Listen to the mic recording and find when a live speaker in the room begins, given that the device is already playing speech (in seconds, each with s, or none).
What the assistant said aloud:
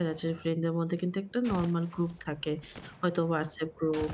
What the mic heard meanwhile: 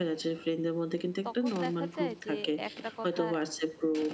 1.3 s